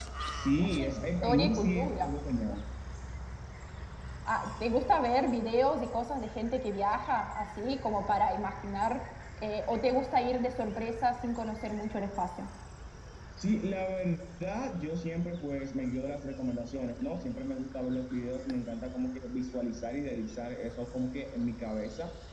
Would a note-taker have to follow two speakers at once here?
Yes, from 0.8 s

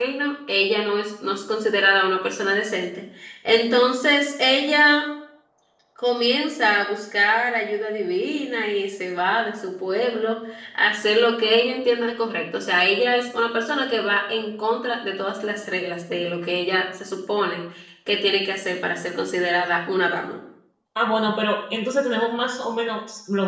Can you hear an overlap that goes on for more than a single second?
No

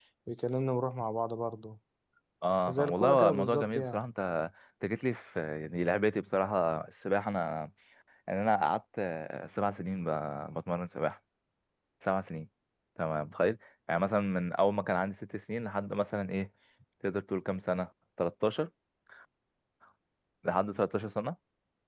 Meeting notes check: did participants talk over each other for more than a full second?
Yes, from 2.7 s

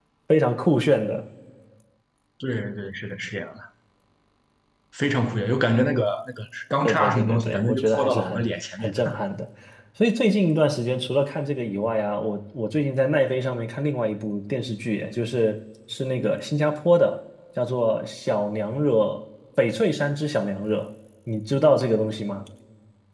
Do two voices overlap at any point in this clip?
Yes, from 6.8 s

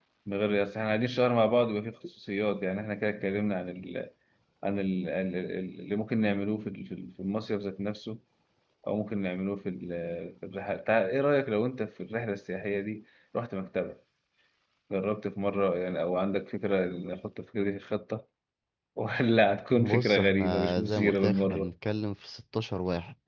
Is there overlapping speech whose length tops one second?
Yes, from 19.8 s

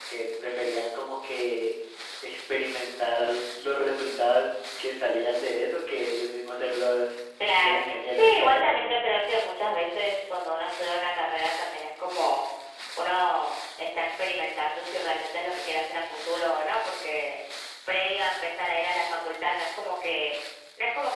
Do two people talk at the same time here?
Yes, from 7.6 s

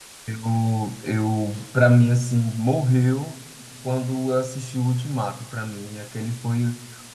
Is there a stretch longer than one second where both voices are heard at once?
No

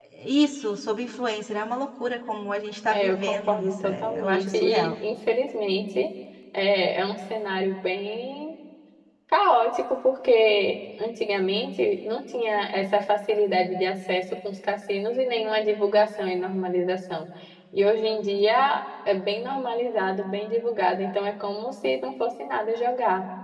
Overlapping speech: Yes, from 2.9 s

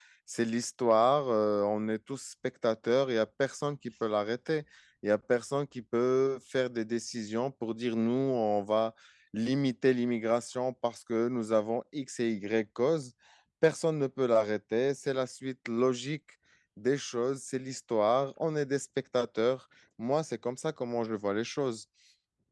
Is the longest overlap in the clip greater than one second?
No

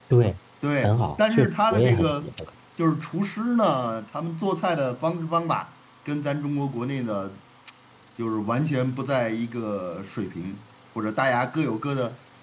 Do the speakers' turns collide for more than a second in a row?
Yes, from 0.8 s

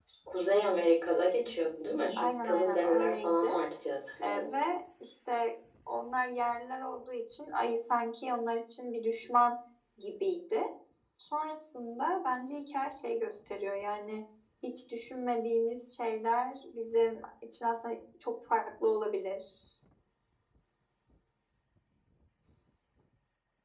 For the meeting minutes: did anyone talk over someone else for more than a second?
Yes, from 2.2 s

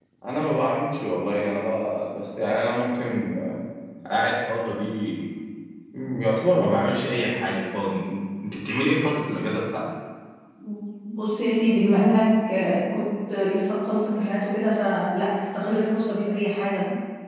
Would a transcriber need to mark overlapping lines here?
No

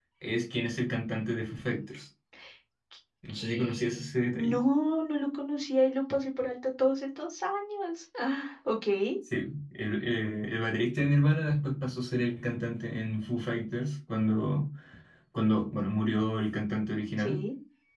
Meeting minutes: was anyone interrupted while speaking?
Yes, from 3.3 s

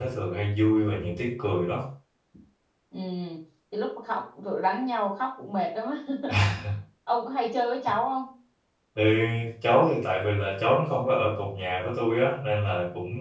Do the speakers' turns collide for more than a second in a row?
No

